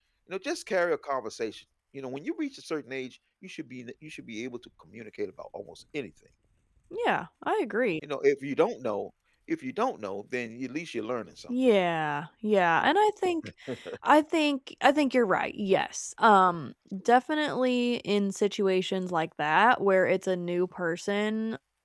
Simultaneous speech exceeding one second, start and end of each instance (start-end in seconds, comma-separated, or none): none